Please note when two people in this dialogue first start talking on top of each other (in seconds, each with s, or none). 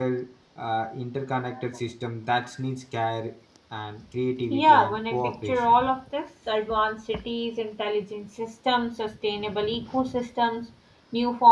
4.5 s